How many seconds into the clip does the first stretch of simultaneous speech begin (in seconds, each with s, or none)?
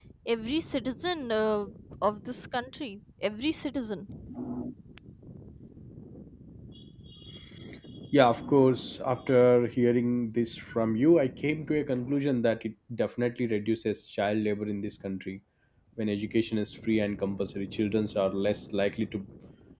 none